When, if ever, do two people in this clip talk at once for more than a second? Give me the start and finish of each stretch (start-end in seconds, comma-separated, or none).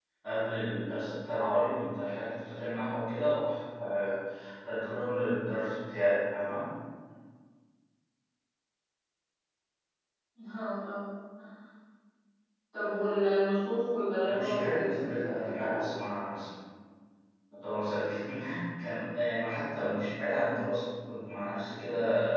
14.2-15.8